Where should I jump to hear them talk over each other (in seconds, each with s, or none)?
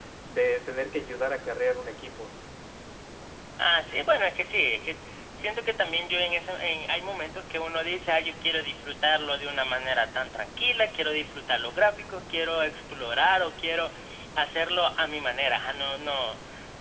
none